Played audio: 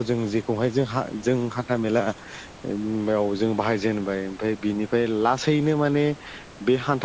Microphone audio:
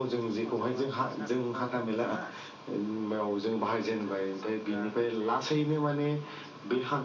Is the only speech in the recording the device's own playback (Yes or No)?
No